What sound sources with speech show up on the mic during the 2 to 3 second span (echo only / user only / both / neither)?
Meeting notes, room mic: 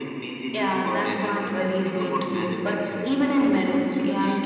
echo only